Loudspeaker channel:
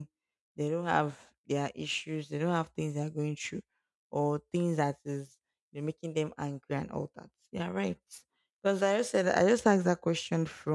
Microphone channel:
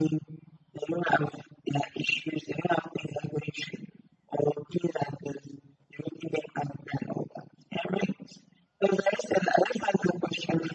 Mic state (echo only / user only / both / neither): echo only